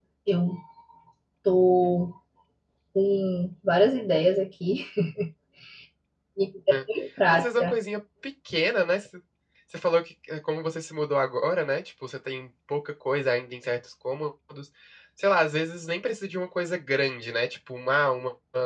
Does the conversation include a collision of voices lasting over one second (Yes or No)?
No